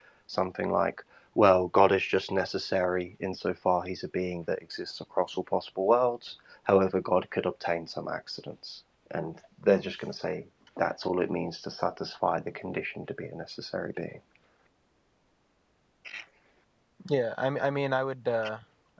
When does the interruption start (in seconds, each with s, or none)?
none